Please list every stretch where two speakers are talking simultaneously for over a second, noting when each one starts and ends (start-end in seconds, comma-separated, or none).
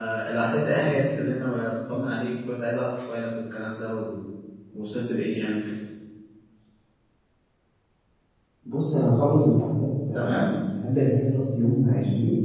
none